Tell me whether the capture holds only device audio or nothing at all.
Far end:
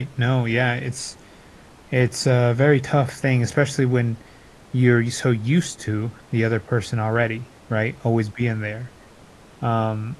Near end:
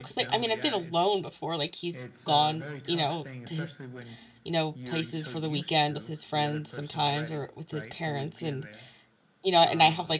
No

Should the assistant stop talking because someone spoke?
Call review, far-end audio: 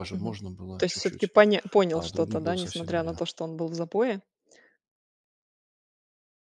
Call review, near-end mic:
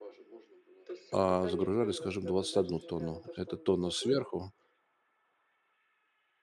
Yes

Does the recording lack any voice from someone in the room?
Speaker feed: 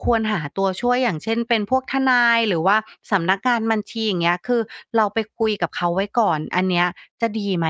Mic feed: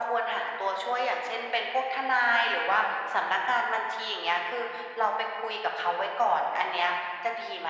Yes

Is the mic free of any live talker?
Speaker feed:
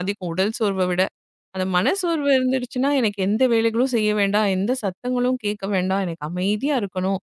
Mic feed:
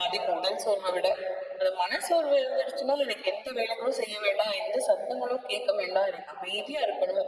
Yes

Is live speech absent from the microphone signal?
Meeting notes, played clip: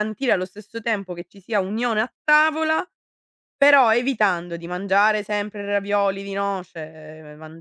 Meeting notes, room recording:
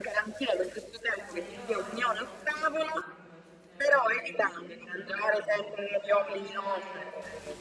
No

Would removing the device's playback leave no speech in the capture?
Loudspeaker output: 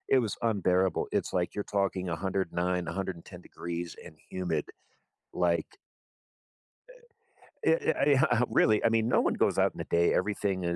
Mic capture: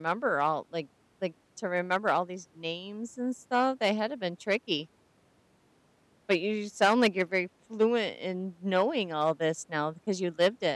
No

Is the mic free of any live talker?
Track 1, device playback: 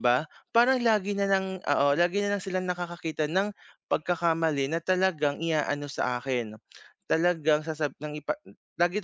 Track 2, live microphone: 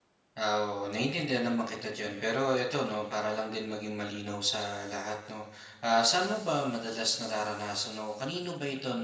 No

